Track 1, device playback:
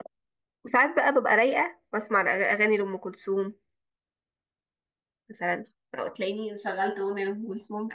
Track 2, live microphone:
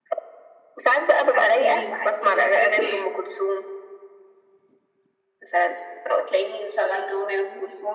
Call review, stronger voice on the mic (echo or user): echo